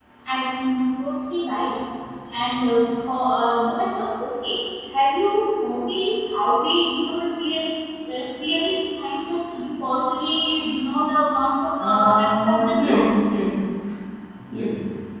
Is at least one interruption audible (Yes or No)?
Yes